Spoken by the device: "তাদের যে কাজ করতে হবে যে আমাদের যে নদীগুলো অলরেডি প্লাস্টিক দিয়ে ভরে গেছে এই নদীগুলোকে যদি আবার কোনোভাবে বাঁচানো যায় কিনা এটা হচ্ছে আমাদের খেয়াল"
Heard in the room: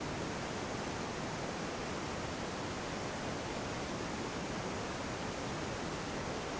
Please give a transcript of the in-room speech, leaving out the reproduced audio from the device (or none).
none